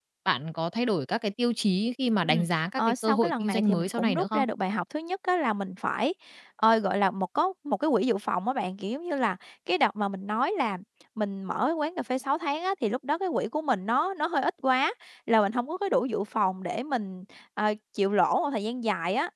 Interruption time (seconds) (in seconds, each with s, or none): 2.2 s